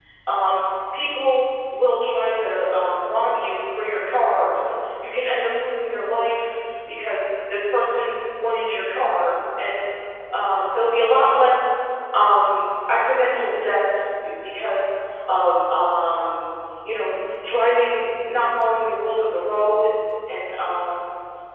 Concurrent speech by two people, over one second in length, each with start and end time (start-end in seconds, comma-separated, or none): none